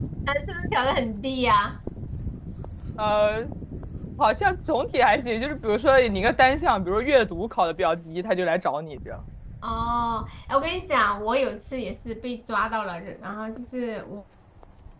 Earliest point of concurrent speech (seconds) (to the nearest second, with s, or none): none